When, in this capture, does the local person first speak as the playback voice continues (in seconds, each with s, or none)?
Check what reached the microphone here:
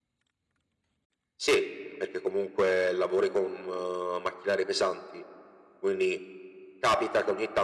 none